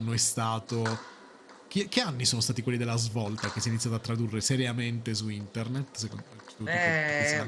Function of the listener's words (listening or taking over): taking over